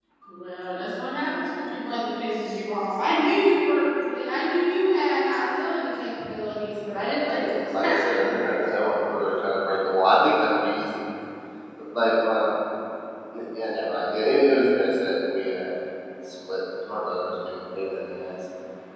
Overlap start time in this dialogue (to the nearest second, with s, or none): 7 s